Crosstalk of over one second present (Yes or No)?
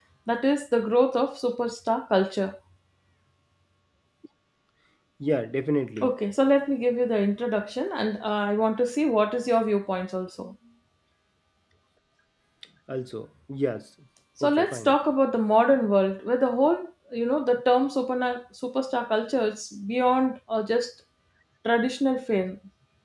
No